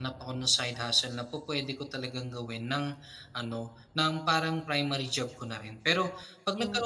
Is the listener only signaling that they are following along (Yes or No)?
Yes